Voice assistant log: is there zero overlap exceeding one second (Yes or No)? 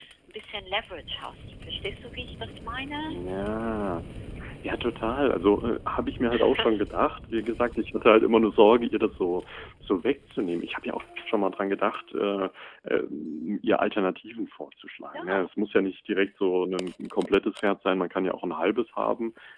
Yes